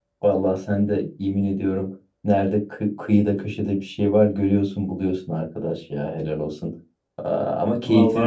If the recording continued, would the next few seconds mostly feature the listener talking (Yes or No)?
No